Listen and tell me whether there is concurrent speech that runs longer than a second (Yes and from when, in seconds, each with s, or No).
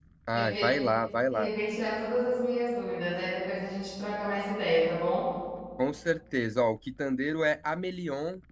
No